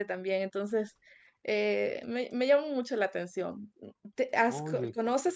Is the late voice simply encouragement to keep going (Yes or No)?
Yes